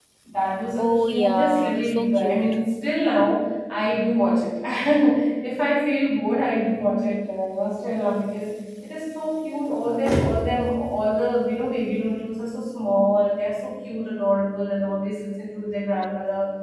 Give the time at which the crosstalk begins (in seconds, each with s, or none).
0.8 s